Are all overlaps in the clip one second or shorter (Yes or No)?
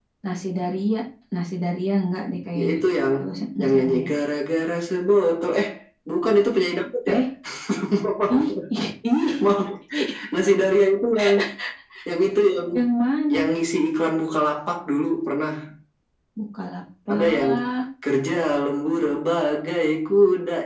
Yes